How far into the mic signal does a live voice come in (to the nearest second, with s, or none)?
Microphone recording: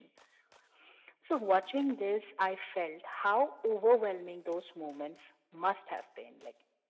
none